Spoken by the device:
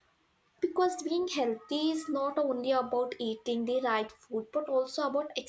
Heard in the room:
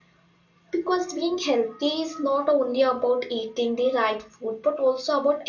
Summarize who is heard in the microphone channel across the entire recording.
echo only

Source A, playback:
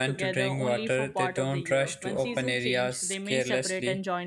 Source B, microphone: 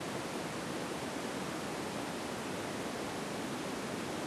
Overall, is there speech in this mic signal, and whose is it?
neither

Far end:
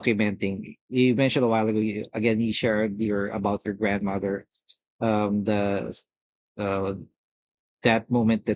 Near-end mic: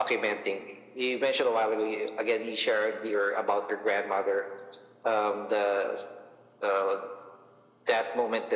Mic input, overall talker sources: echo only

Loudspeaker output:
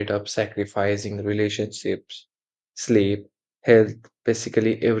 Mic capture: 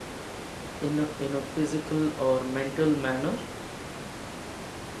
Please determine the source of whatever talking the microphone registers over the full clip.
user only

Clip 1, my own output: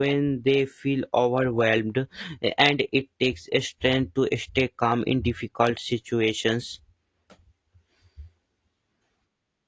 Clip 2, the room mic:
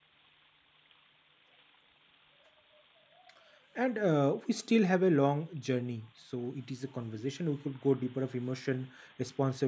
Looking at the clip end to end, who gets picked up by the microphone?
user only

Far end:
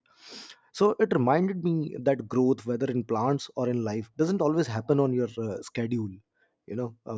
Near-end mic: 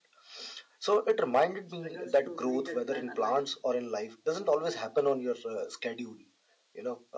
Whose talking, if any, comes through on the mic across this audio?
both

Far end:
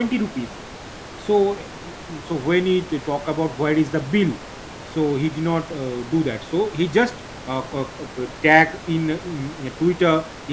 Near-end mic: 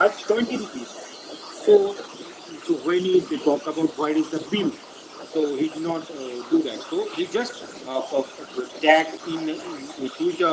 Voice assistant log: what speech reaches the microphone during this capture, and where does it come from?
echo only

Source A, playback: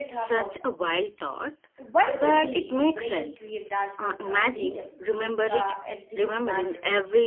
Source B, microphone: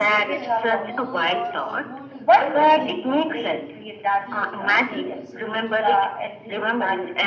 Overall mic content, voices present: both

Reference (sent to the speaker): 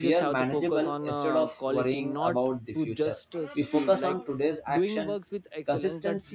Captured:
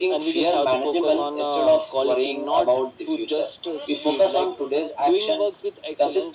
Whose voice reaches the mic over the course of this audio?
echo only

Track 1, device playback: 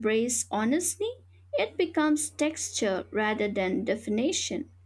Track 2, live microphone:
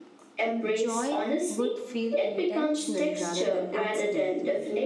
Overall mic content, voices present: both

